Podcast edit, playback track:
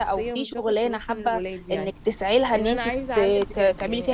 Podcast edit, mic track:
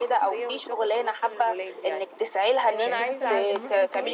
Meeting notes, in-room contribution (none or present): present